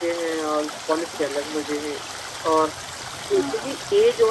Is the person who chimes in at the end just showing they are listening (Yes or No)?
Yes